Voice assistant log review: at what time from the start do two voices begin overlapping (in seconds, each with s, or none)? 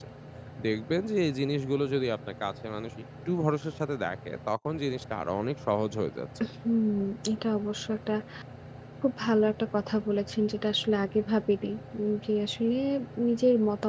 none